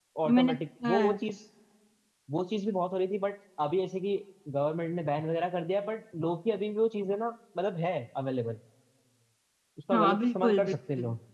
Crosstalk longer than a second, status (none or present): present